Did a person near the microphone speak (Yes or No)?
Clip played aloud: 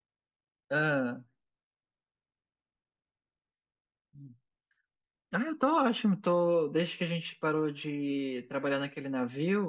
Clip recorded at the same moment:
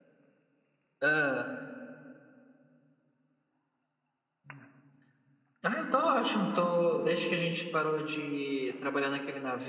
No